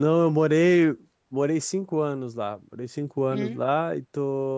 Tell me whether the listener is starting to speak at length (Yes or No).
No